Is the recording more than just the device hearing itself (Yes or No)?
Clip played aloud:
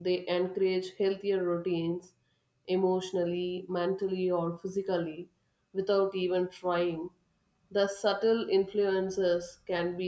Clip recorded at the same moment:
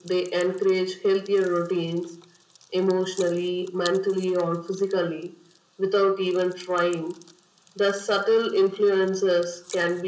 No